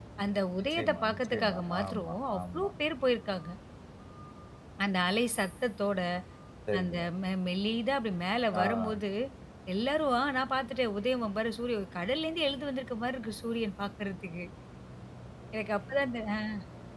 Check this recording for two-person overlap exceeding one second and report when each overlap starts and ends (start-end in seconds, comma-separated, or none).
0.6-2.7